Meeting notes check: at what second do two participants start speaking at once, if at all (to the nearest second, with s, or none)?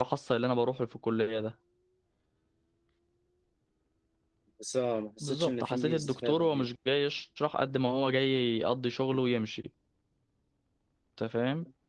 5 s